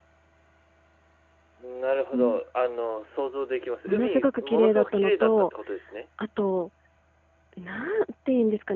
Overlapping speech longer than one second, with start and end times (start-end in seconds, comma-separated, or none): 3.9-5.5